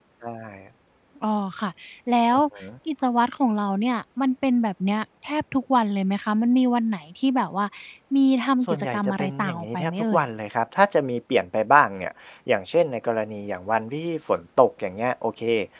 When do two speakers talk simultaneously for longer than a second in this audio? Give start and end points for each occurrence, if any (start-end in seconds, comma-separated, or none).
8.6-10.2